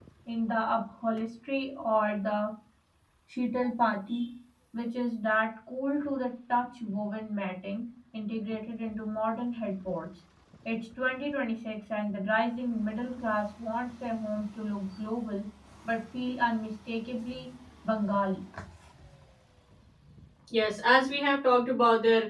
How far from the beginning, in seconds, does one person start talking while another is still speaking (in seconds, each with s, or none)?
none